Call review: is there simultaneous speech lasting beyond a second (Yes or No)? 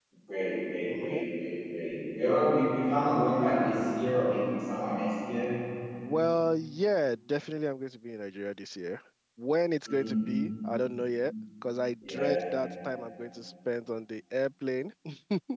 No